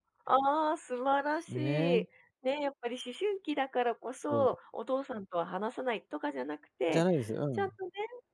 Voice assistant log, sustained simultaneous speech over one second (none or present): none